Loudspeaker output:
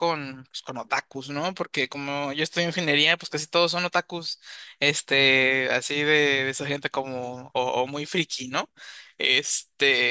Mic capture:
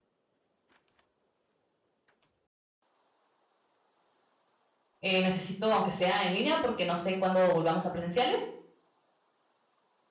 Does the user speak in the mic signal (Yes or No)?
Yes